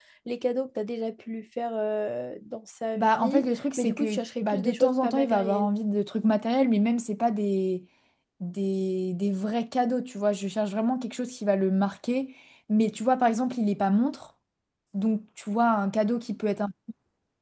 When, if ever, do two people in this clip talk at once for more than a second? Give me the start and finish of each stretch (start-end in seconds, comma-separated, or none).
3.0-5.7